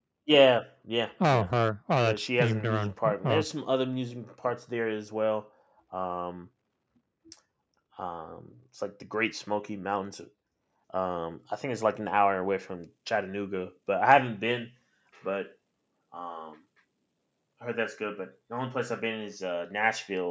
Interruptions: present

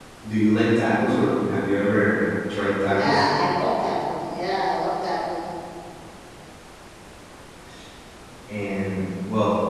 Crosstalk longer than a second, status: none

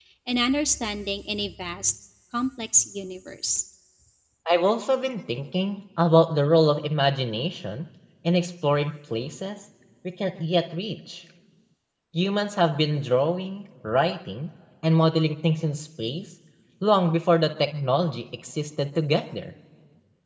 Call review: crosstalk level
none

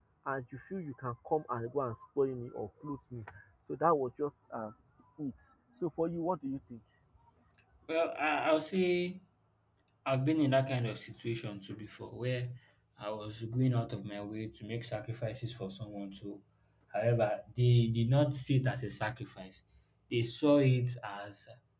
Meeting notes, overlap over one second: none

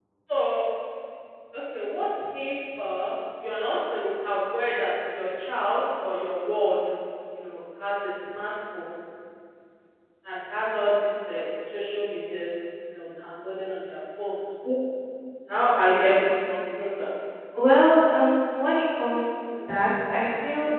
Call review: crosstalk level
none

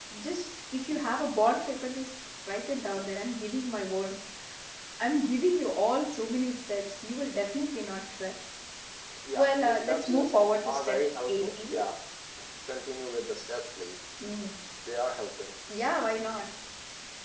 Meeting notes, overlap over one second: present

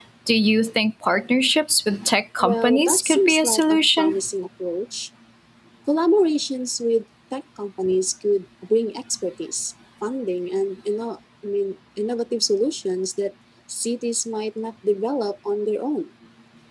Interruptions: present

